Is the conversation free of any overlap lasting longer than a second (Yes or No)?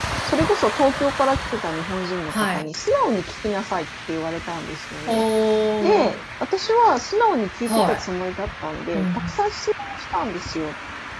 Yes